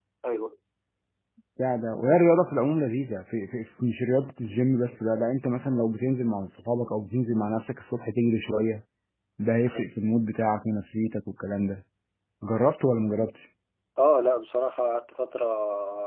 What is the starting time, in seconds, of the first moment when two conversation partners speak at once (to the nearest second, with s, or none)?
none